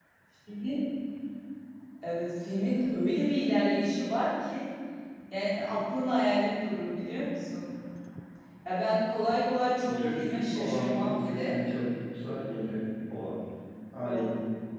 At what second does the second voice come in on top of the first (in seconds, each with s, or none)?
9.8 s